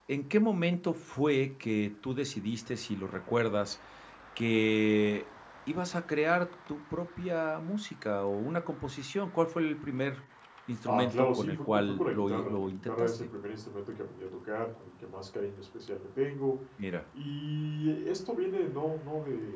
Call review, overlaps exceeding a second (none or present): present